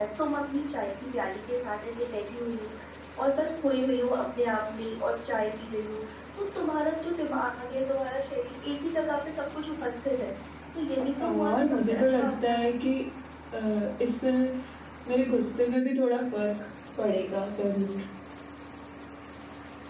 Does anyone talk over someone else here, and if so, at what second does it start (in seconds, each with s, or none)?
11.2 s